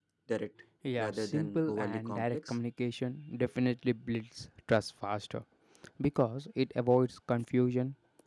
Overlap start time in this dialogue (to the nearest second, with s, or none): 1 s